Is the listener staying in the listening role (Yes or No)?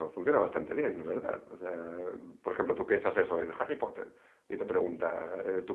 Yes